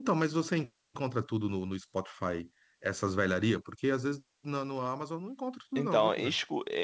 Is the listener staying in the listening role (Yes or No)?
No